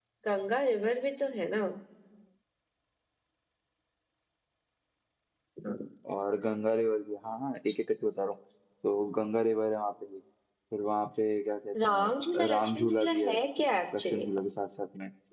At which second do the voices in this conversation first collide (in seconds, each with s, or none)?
11.9 s